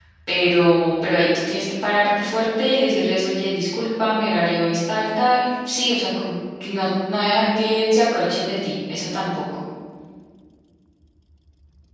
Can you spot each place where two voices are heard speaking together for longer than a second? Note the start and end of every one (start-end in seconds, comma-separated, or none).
none